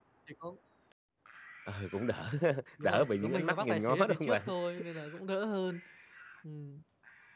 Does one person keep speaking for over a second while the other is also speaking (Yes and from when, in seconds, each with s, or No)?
Yes, from 2.8 s